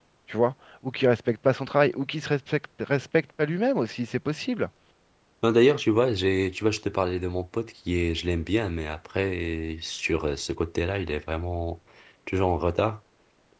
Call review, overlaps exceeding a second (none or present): none